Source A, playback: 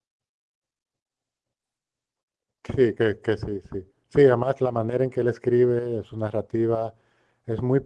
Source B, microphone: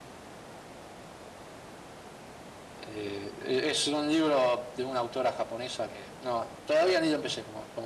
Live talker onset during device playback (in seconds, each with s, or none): 2.8 s